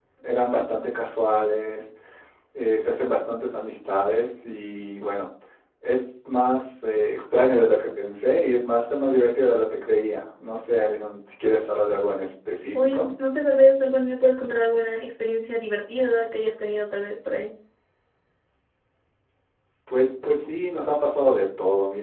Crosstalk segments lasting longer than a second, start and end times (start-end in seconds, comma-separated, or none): none